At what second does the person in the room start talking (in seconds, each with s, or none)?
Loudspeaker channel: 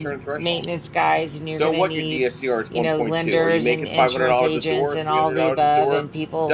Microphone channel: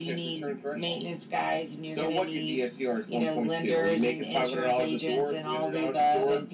none